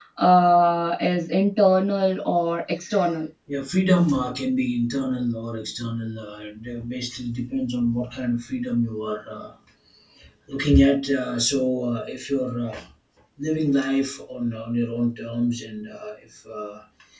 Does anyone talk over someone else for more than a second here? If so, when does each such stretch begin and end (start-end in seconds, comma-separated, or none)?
none